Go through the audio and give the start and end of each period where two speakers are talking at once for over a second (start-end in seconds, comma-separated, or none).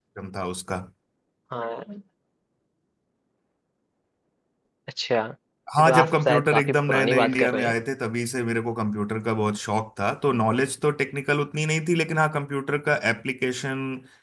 5.8-7.7